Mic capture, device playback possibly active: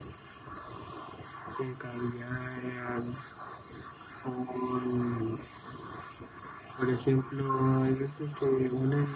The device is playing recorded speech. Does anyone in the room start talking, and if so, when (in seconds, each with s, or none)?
none